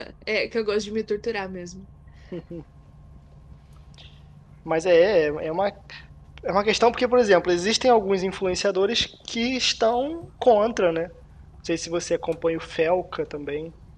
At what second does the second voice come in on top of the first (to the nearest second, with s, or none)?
none